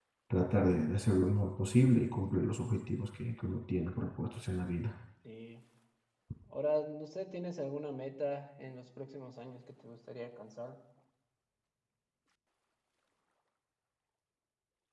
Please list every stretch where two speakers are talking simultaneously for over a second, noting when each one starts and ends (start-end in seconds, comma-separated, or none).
none